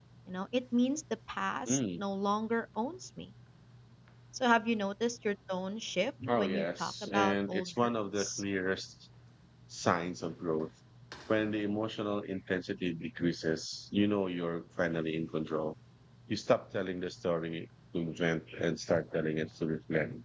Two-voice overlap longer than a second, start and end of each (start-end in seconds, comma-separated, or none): 6.3-8.4